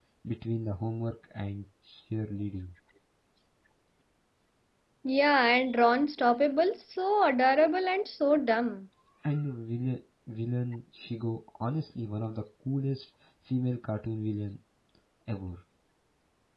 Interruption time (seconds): none

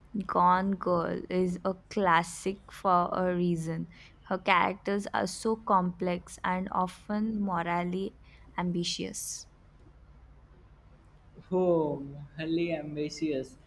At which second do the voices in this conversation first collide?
none

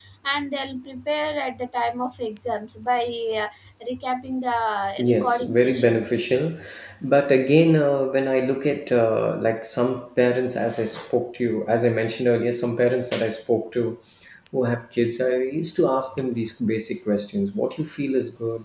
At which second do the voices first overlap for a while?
5.0 s

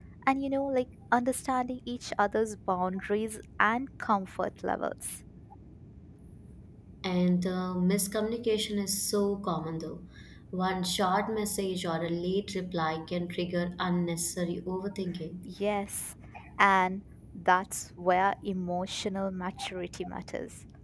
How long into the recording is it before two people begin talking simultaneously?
none

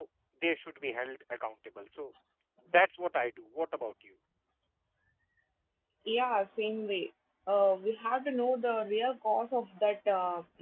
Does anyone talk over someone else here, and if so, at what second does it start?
none

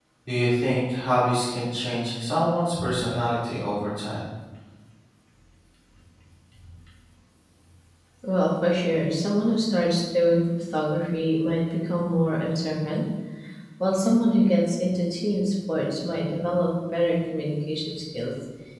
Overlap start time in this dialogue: none

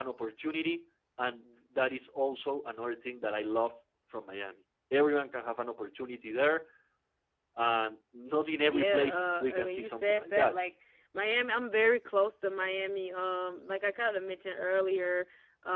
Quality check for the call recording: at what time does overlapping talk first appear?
8.6 s

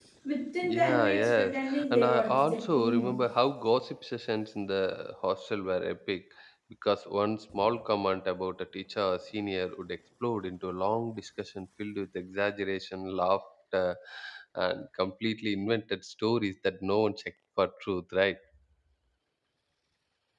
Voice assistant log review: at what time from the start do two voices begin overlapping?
0.6 s

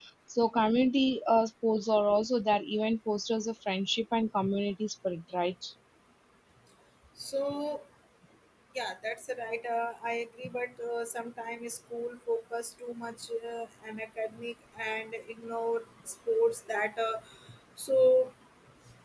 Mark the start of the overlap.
none

